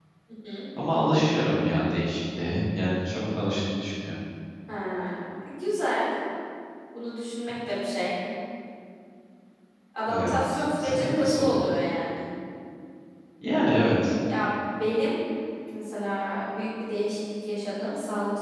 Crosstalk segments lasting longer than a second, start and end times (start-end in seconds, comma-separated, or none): 10.1-11.6